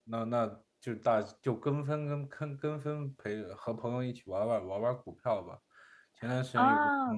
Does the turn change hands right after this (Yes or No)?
No